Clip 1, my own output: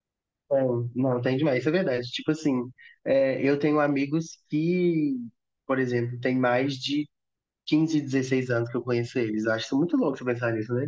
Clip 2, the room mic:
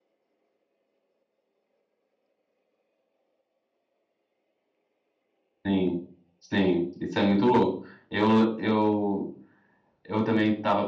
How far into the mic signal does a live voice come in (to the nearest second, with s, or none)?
6 s